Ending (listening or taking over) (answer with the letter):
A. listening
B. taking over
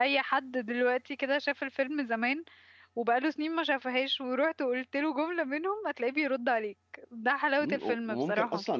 B